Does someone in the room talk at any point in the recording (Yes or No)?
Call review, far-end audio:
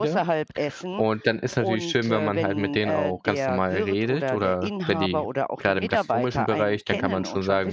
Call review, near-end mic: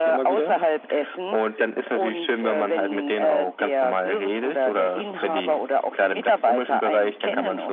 No